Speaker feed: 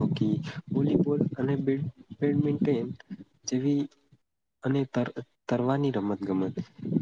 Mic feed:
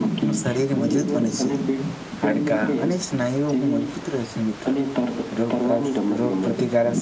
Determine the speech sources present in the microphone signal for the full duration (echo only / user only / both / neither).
both